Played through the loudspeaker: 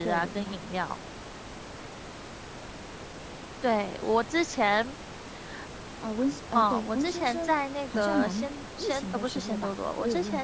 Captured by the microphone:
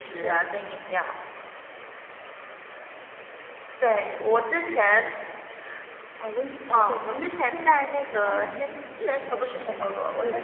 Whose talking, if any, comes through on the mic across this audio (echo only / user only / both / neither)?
echo only